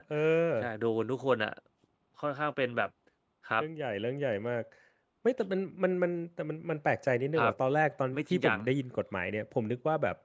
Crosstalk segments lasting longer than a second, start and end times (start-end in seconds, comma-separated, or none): none